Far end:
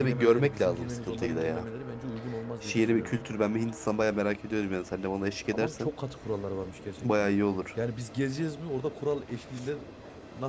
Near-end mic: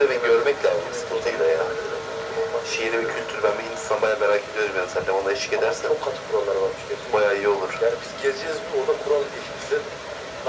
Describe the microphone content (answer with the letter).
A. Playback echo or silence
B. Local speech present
A